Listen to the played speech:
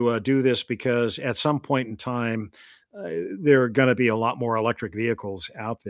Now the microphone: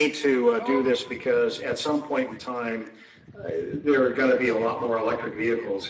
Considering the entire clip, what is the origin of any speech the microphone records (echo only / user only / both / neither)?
both